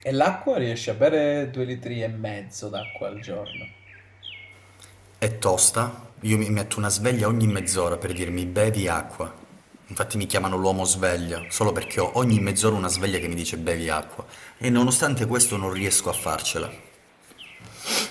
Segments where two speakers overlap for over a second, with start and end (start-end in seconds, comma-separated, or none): none